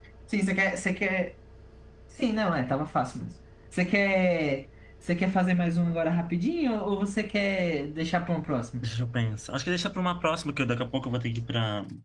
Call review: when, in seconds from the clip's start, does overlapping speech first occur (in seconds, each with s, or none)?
none